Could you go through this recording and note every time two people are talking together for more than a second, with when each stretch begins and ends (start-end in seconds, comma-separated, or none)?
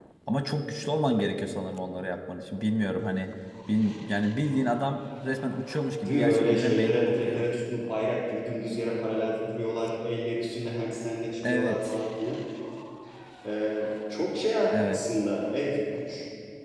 6.0-7.5